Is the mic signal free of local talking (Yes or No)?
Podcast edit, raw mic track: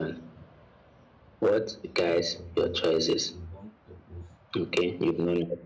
No